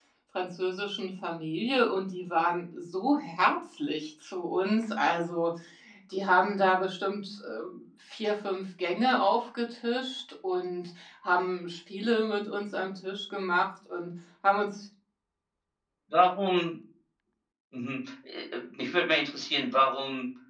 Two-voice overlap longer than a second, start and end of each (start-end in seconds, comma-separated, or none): none